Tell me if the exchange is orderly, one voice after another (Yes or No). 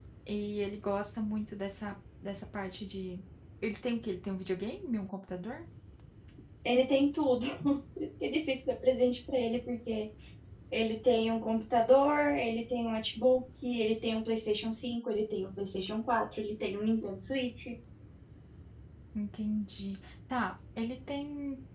Yes